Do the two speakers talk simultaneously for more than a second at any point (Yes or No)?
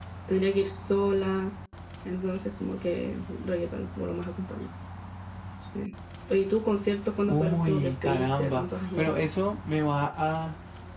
Yes